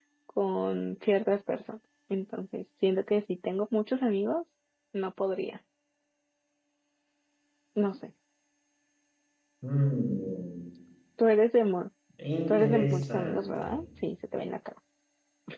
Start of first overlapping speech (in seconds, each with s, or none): 12.5 s